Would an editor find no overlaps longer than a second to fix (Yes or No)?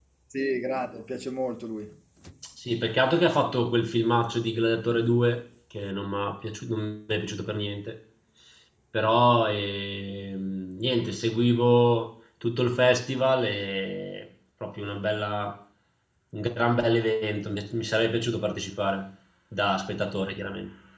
Yes